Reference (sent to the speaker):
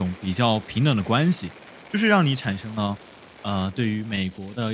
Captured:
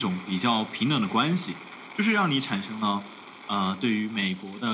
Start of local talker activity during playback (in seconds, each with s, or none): none